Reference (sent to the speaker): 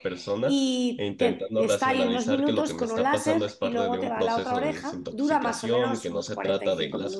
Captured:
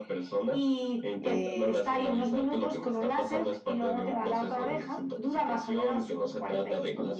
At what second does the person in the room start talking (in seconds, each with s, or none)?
1.2 s